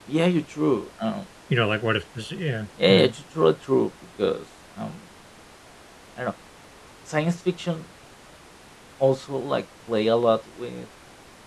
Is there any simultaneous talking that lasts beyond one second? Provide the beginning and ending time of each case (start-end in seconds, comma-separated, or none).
none